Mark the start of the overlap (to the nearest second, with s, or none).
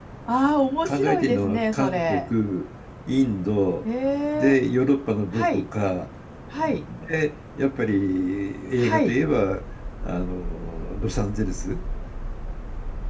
1 s